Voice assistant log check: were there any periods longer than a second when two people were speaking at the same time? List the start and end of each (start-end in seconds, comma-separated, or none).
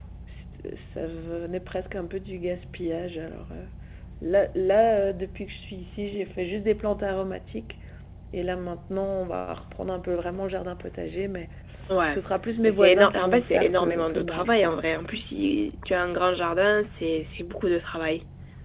12.7-14.8